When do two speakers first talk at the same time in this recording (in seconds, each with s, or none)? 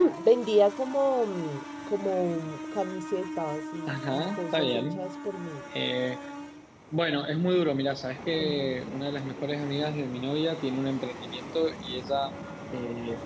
3.9 s